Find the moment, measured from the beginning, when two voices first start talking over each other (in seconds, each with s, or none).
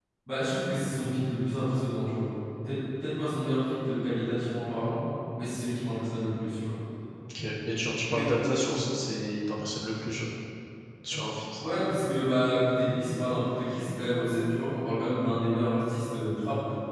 none